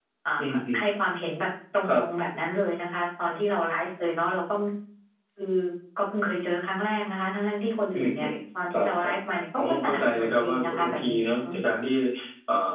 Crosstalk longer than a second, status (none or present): present